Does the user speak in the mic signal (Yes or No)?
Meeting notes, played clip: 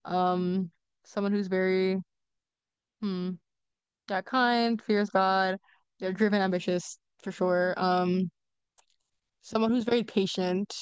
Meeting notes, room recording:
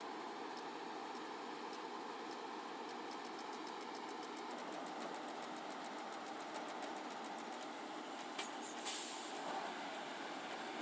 No